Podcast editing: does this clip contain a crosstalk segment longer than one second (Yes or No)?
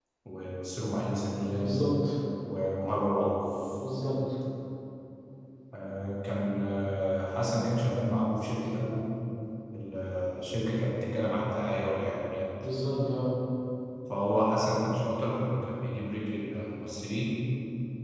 No